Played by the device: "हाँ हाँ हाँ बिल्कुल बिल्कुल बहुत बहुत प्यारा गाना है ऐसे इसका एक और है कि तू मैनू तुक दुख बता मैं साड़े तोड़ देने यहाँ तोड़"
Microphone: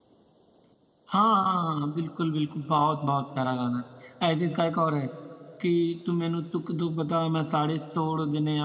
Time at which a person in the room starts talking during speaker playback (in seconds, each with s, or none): none